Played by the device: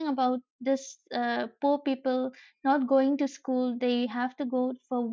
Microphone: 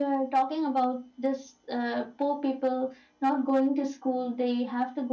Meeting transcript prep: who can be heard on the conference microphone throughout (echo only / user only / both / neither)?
echo only